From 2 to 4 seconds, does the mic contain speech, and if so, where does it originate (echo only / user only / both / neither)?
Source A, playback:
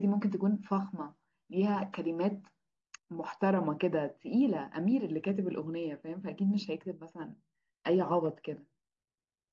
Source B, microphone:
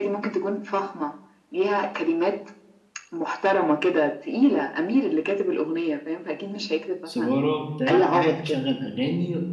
echo only